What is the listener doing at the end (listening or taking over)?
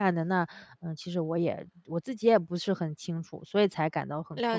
taking over